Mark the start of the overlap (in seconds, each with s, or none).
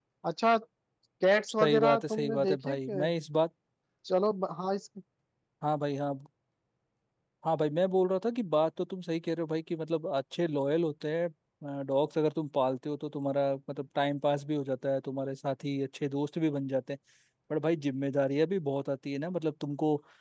1.6 s